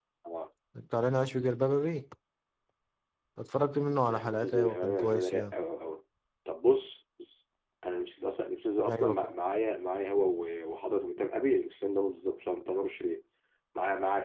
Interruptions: present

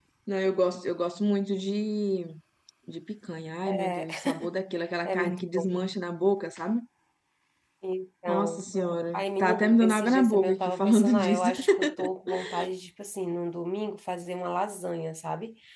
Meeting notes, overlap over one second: present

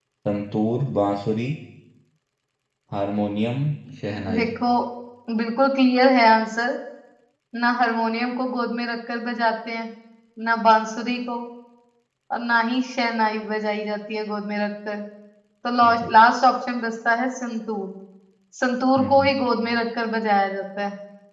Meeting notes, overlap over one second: none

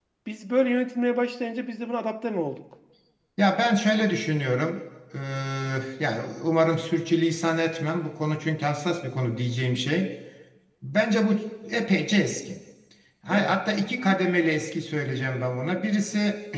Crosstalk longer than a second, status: none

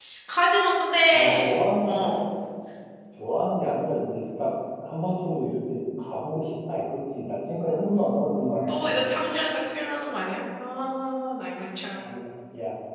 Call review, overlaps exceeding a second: none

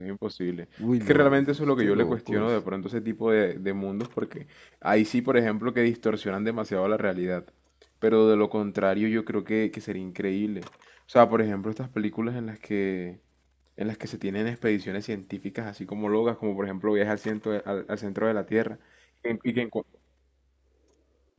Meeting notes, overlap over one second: present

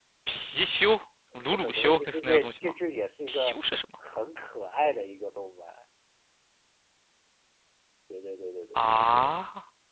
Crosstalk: present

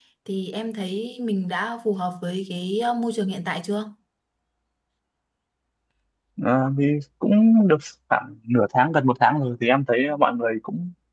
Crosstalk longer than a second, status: none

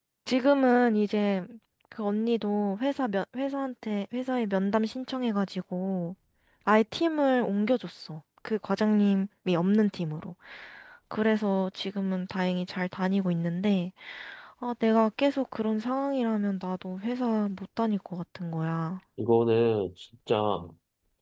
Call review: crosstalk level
none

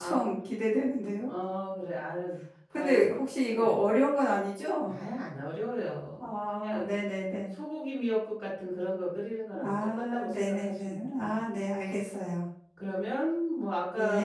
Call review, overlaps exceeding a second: present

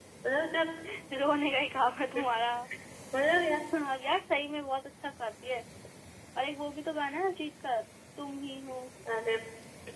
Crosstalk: none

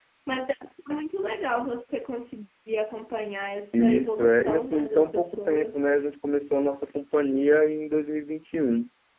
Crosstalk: present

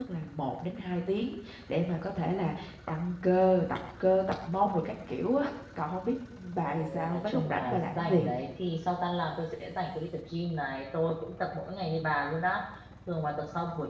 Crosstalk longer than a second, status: present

